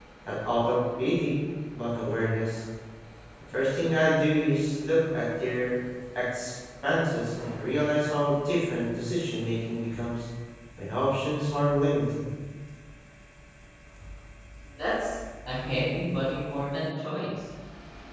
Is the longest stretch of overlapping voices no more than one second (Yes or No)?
Yes